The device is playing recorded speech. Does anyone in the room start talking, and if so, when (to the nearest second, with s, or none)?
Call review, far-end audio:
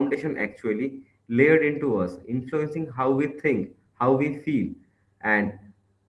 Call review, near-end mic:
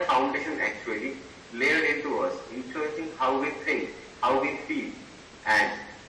none